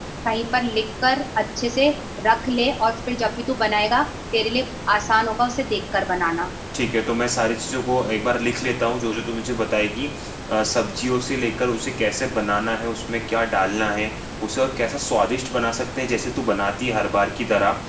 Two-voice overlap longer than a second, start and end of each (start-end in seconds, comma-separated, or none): none